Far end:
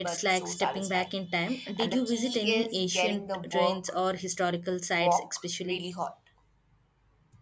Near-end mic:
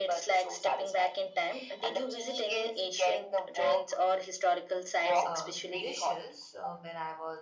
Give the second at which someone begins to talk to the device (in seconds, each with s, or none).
5.2 s